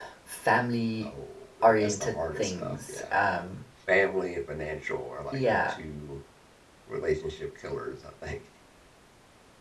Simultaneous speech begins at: 1.6 s

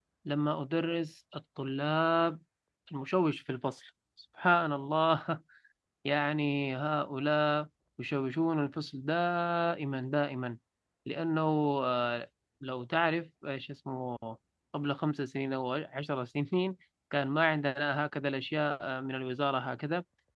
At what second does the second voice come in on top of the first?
none

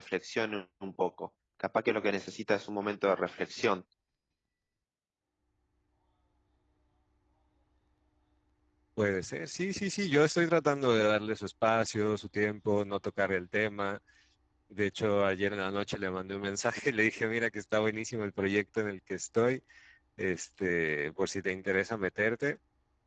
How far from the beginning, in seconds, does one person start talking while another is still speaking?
none

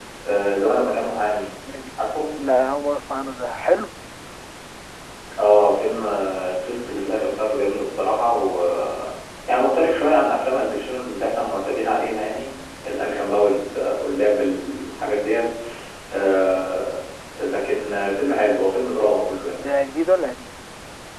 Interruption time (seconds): none

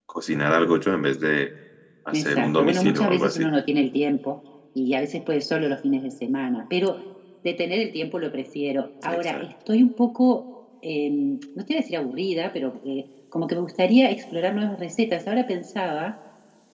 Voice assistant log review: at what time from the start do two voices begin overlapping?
2.1 s

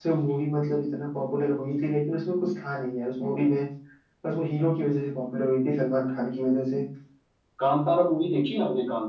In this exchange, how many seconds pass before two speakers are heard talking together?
none

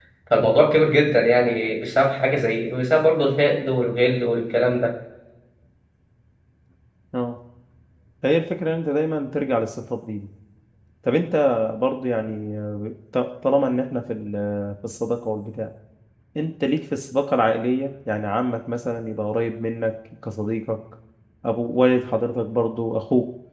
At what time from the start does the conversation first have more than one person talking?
none

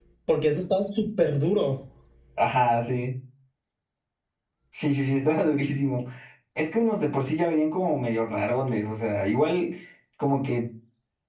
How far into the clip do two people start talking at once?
none

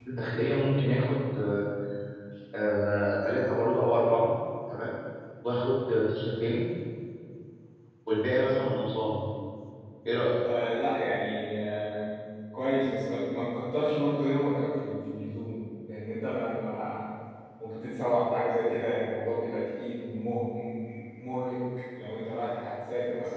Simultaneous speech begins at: none

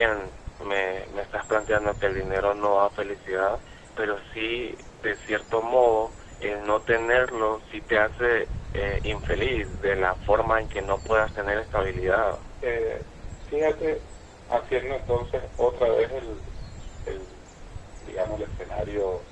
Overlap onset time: none

